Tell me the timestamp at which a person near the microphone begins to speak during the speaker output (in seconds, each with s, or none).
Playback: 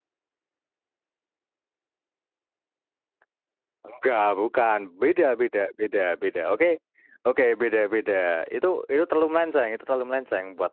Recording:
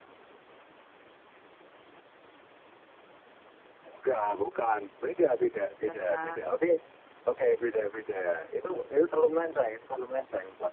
5.9 s